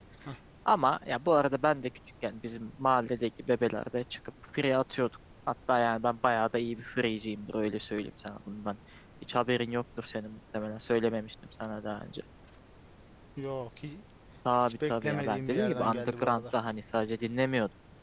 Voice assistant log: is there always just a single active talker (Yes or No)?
No